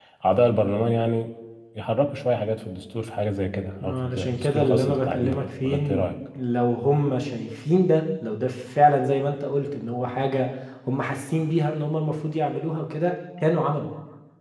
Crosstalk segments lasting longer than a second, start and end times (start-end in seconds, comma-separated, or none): 3.8-6.0